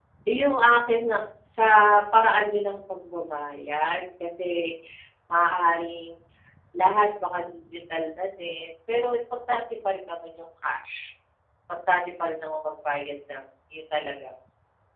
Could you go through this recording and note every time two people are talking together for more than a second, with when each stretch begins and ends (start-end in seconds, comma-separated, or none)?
none